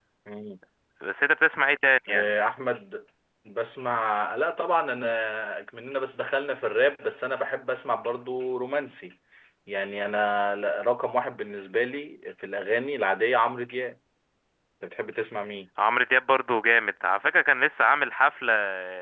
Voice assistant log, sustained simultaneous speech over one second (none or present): none